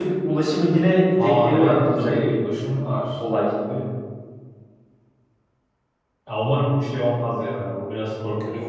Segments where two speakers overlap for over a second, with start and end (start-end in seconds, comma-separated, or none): 1.2-2.4